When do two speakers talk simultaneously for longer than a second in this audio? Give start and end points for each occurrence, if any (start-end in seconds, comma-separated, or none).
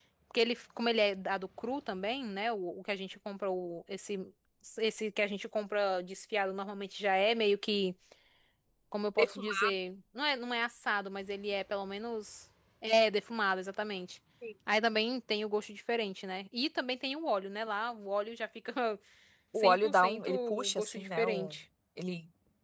19.6-21.5